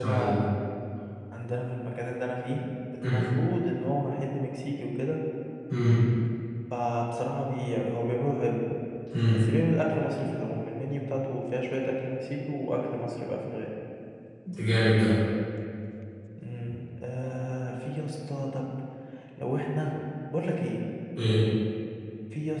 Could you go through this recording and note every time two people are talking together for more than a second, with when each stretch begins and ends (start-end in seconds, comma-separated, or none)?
none